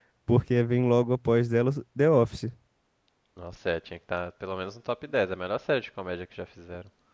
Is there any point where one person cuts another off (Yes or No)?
No